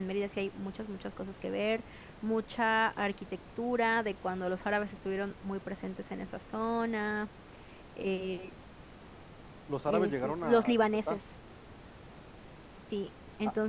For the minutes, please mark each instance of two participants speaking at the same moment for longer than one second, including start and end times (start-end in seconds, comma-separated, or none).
9.9-11.2